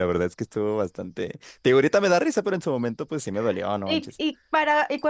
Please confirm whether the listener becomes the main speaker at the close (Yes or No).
Yes